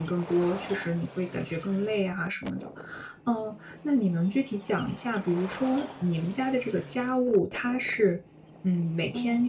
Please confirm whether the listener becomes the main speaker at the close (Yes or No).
No